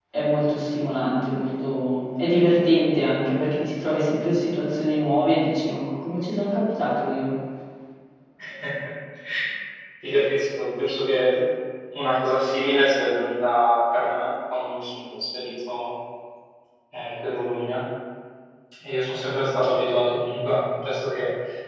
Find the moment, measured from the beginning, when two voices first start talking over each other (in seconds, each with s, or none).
none